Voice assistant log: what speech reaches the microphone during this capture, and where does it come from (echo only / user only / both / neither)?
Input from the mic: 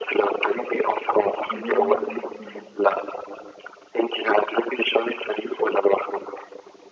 both